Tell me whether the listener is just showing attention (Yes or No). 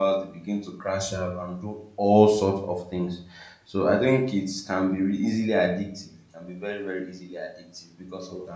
Yes